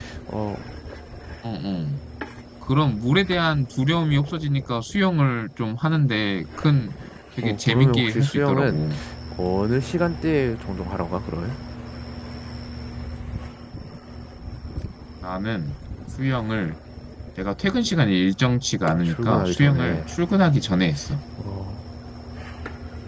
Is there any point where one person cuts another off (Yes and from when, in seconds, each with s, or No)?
Yes, from 7.4 s